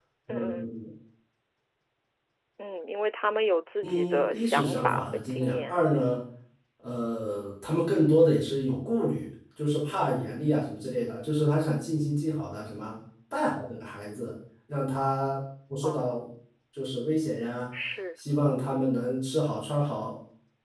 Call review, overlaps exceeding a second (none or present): present